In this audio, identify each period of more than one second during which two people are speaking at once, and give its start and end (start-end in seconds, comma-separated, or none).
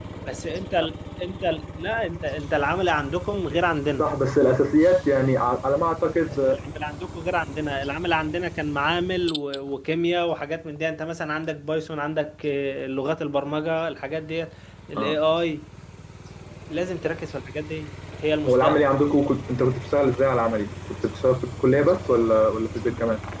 none